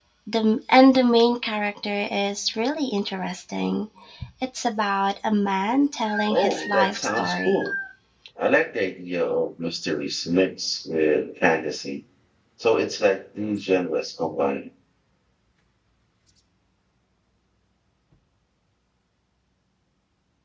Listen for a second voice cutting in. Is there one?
Yes, from 6.3 s

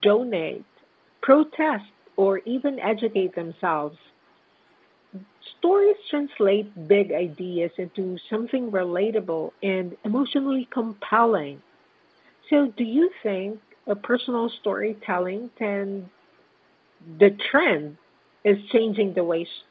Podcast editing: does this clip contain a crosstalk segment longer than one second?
No

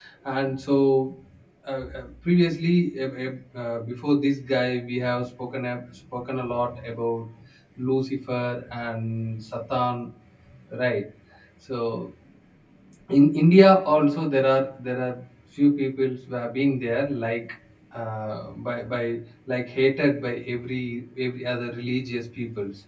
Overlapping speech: No

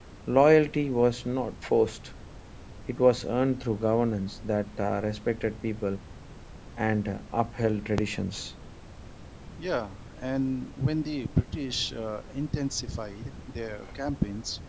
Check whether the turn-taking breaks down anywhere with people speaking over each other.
No

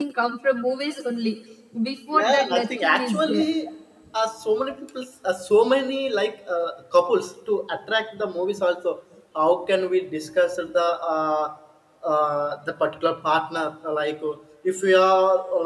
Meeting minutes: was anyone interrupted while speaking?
Yes, from 2.1 s

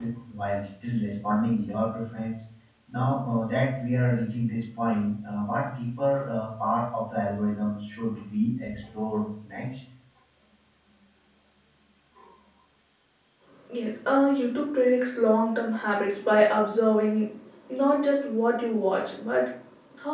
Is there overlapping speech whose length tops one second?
No

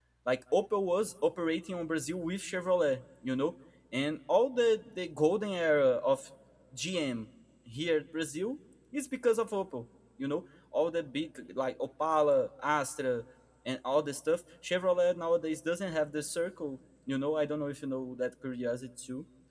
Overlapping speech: No

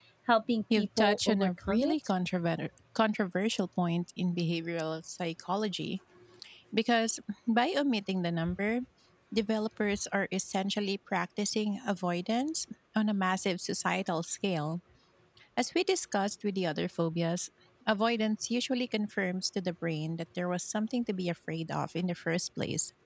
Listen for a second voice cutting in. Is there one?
Yes, from 0.7 s

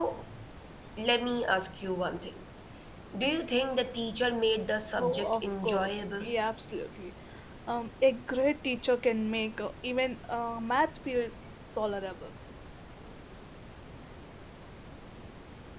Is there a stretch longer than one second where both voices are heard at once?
Yes, from 4.9 s

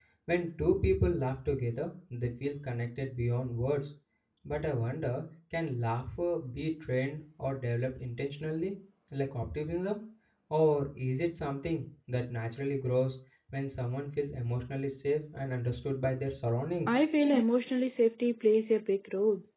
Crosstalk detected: No

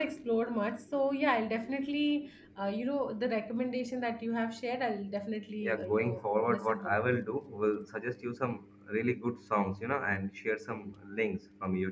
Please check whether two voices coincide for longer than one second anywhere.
Yes, from 5.6 s

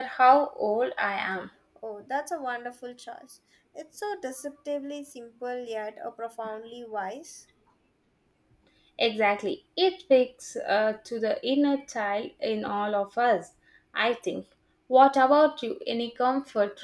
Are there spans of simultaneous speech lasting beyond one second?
No

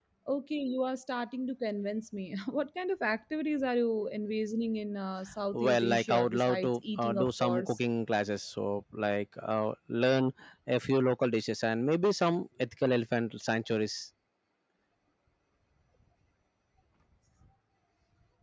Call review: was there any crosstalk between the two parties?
Yes, from 5.5 s

